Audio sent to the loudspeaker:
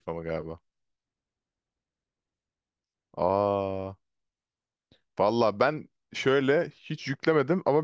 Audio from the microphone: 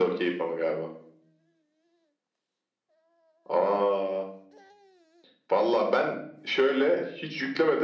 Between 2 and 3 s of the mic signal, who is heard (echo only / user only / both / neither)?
neither